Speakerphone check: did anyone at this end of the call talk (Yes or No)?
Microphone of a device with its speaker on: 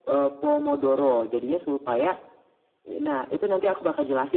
No